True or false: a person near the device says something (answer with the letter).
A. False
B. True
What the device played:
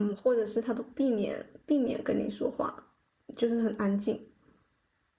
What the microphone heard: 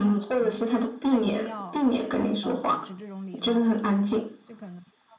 B